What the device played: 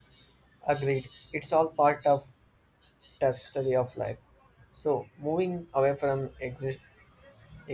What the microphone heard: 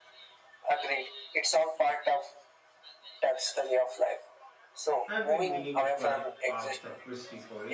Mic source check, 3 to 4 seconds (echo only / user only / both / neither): echo only